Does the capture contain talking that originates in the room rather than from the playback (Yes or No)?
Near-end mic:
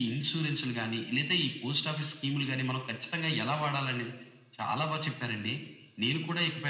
No